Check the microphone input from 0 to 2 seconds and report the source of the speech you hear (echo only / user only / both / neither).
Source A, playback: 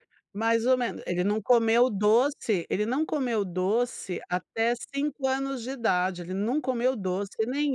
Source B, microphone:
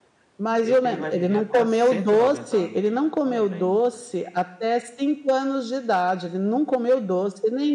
both